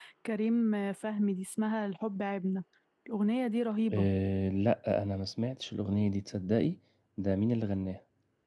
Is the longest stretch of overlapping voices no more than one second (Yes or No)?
Yes